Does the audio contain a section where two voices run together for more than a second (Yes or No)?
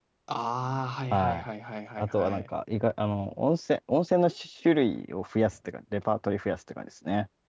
No